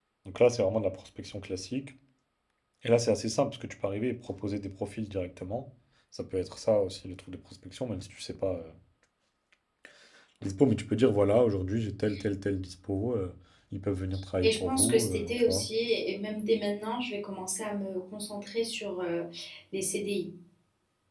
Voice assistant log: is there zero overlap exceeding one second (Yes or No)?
No